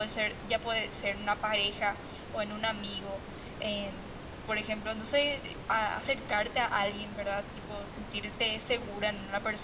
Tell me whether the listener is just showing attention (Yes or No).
Yes